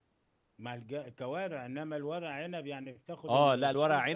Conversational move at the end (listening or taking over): taking over